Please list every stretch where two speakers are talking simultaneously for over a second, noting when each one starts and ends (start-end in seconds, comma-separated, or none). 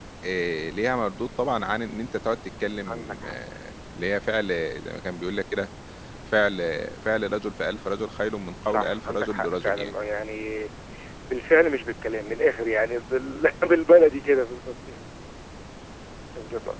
8.7-9.9